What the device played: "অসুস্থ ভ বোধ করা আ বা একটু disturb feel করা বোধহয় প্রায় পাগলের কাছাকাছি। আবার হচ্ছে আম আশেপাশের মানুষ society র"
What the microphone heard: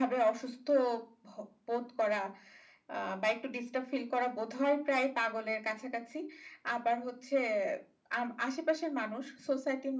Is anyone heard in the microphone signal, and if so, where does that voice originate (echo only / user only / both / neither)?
echo only